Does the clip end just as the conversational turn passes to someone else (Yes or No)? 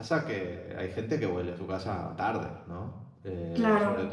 No